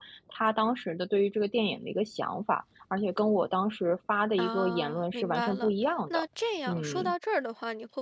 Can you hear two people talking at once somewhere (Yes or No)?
Yes